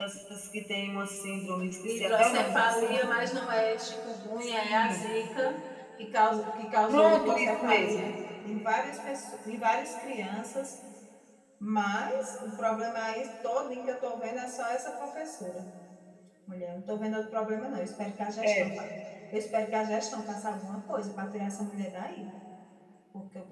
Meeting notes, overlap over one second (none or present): present